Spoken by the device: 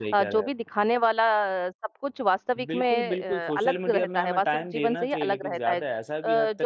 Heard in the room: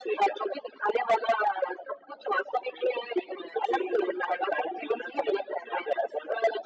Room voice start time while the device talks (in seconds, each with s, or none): none